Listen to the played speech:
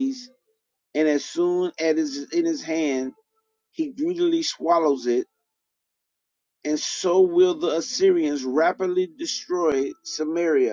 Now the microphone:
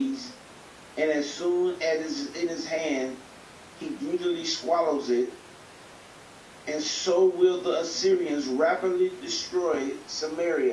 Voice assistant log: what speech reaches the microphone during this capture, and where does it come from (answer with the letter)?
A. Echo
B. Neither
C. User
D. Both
A